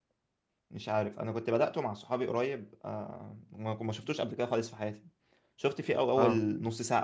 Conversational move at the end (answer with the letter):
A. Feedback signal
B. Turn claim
A